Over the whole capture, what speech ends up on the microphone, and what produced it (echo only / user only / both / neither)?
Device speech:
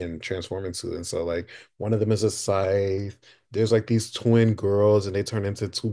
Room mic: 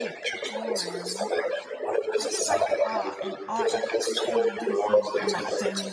both